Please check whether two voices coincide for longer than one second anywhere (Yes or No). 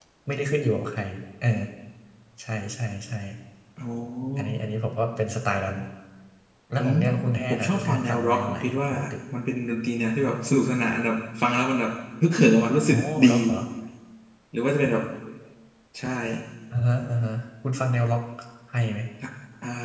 Yes